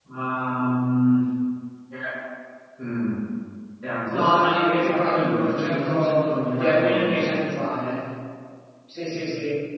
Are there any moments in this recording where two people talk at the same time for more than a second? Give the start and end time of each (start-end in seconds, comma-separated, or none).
4.1-7.3